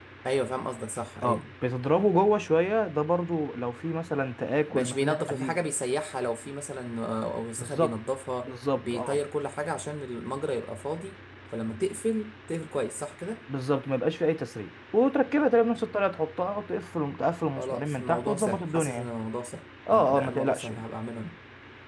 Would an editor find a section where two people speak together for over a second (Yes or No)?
Yes